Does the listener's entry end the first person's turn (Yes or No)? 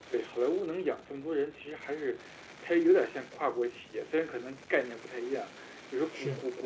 No